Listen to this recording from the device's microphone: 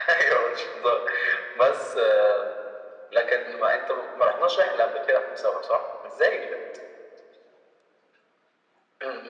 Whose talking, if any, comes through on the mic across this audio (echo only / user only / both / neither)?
echo only